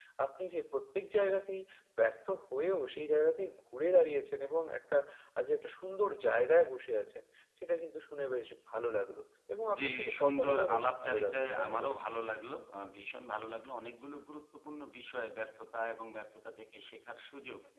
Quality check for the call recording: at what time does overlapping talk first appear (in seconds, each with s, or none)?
9.7 s